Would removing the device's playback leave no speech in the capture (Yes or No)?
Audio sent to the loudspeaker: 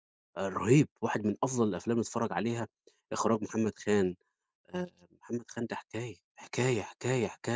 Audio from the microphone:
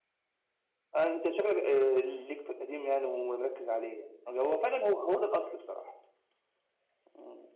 No